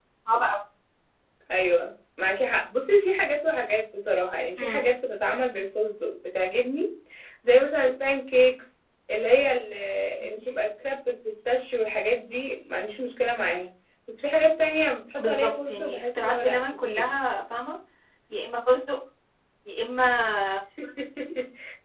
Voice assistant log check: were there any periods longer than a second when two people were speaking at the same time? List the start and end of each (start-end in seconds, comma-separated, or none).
15.2-17.1